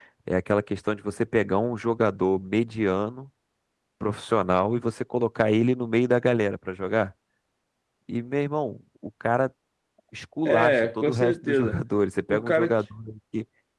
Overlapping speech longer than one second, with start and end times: 10.4-11.8

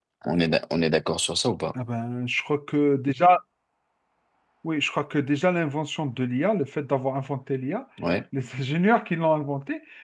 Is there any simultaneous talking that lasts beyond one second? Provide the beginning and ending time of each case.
none

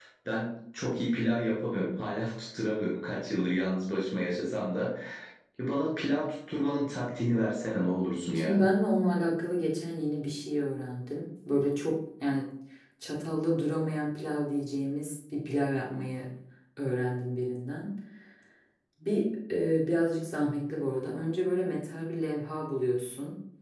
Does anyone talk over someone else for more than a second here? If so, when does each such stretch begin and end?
none

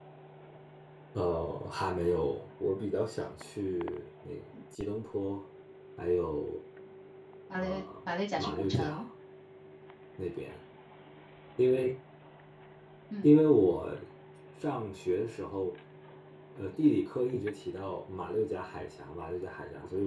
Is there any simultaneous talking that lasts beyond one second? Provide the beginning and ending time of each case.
7.6-9.1

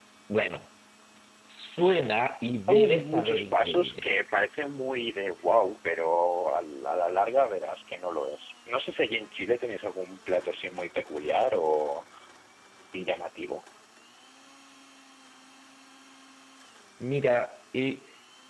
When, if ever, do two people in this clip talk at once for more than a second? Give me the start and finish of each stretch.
2.7-4.0

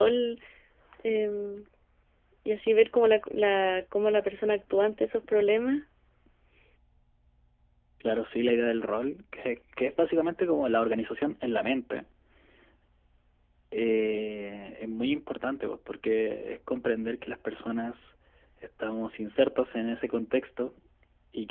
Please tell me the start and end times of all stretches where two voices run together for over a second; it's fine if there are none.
none

